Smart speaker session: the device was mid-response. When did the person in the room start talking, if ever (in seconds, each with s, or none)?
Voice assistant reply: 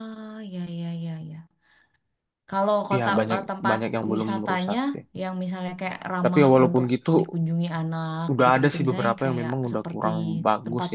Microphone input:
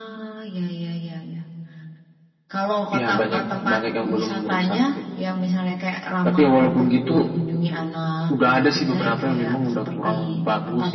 none